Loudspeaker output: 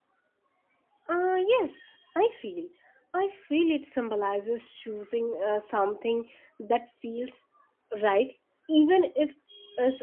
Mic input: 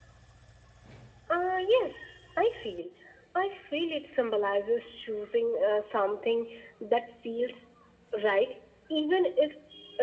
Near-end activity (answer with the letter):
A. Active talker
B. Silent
B